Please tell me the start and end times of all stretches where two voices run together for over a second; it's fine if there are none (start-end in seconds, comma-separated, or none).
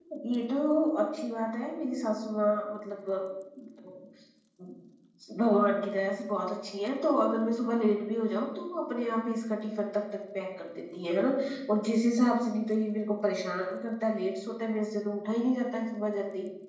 none